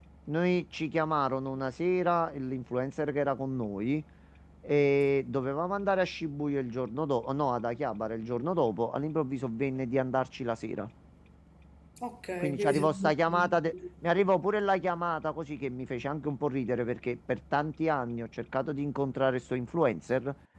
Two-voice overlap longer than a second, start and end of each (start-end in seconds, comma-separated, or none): 12.4-13.7